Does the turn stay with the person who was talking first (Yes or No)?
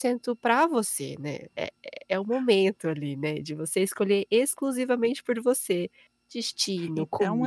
No